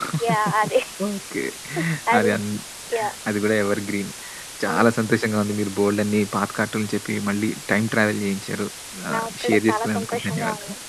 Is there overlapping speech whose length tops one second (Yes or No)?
Yes